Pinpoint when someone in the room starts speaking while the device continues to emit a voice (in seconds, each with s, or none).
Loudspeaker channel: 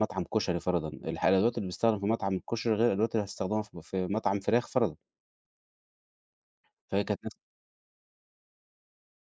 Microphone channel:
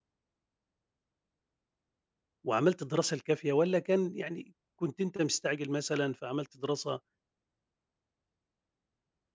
2.4 s